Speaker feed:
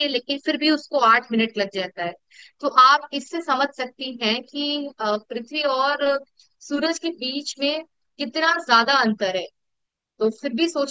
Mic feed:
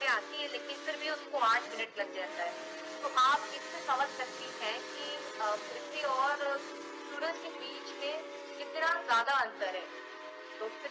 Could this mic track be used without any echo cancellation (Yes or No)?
No